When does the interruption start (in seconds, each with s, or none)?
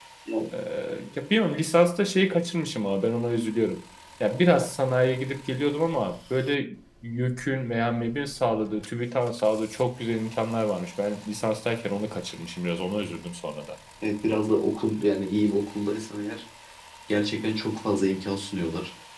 none